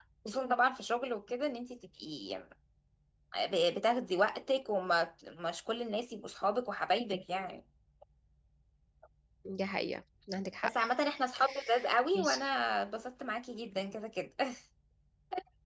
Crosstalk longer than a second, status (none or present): none